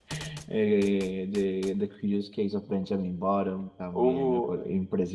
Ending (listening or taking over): listening